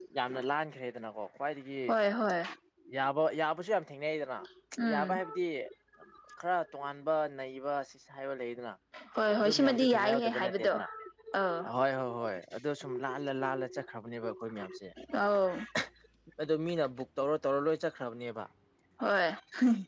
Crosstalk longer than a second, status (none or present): present